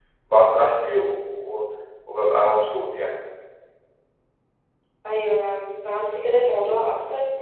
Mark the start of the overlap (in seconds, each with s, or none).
none